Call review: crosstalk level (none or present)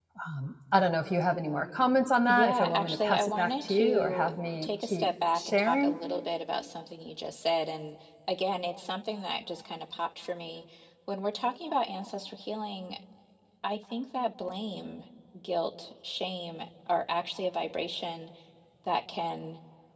present